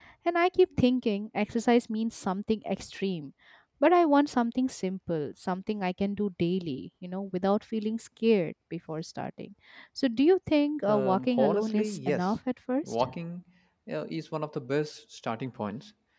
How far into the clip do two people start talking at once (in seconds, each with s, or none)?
10.9 s